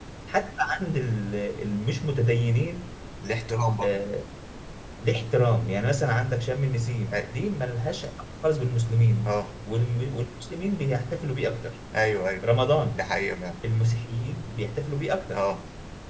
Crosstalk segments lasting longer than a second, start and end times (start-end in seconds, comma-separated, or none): none